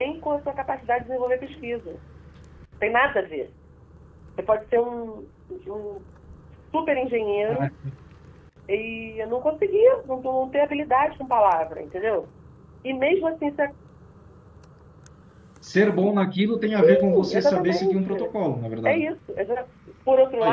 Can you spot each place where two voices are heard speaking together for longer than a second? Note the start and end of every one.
16.8-18.1

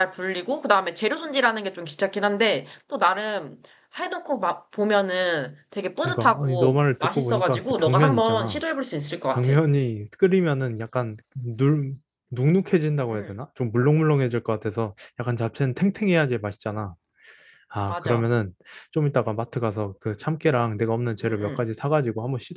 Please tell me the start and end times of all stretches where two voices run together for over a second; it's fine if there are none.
6.0-8.6

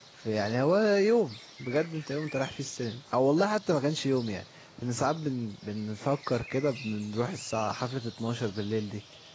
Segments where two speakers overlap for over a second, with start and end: none

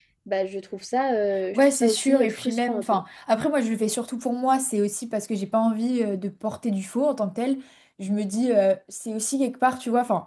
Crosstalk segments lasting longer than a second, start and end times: 1.5-3.0

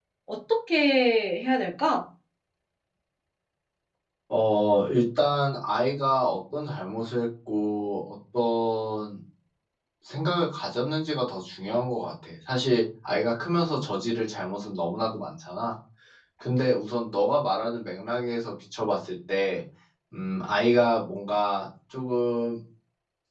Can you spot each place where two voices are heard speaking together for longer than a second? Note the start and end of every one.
none

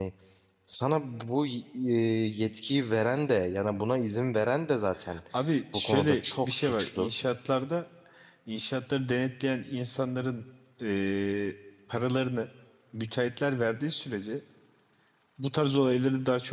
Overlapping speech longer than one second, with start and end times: 5.7-7.1

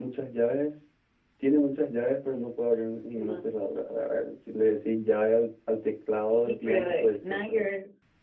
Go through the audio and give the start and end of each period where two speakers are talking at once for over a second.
6.4-7.7

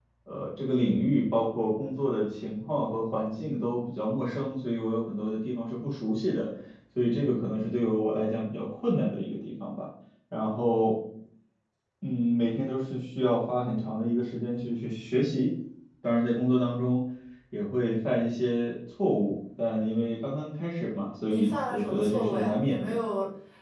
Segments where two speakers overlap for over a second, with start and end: 21.3-22.9

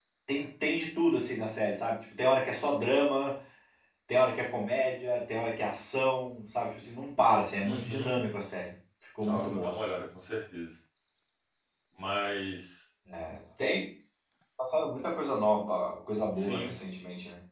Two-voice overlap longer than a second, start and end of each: none

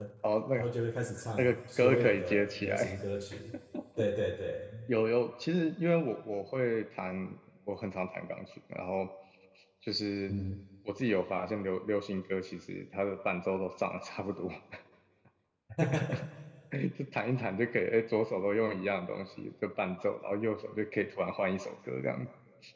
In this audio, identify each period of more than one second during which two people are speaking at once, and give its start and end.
1.4-3.0

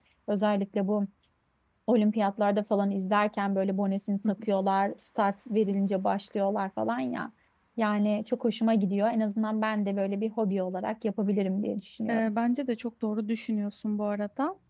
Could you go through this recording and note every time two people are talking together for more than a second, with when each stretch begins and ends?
none

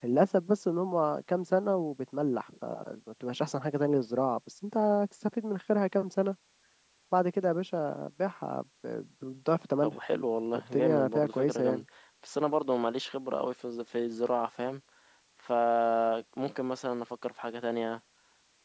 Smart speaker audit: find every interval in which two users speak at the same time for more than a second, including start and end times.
10.5-11.8

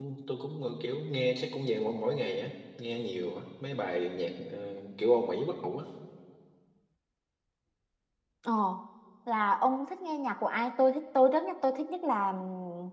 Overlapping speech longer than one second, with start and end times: none

